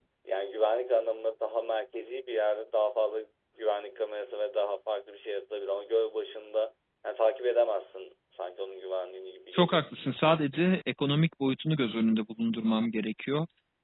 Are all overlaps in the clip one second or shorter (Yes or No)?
Yes